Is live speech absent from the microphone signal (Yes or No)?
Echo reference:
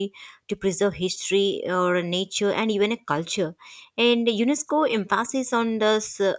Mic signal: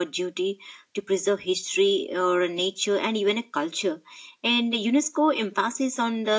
Yes